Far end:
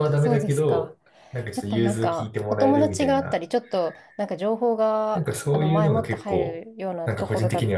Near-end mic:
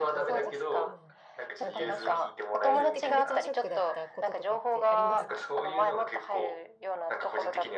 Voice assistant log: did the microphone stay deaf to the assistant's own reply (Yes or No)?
No